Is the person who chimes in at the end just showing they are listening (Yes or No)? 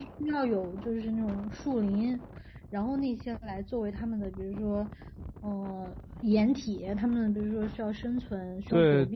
No